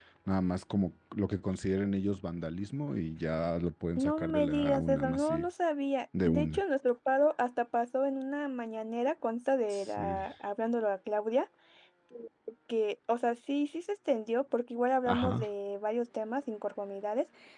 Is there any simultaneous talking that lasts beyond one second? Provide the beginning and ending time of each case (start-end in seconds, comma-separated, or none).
4.0-5.5